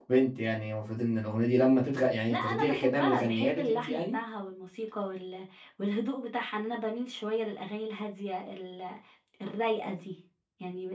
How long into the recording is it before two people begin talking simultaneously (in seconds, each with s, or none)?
2.3 s